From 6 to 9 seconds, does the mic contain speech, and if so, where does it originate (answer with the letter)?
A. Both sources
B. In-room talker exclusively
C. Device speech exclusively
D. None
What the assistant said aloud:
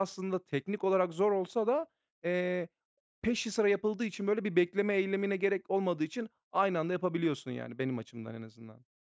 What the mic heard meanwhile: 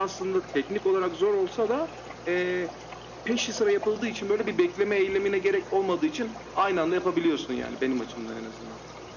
C